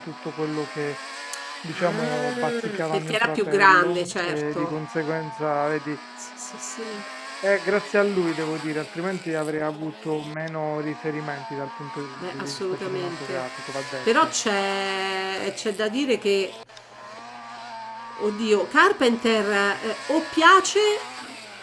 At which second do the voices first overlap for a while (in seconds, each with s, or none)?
1.8 s